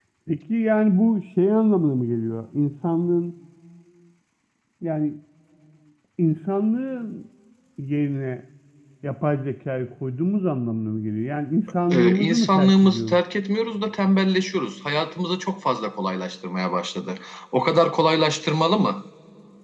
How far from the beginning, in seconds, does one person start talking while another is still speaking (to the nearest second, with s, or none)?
12 s